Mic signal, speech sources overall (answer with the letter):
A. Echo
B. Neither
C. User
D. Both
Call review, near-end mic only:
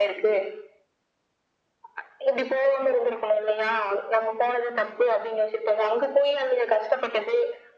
A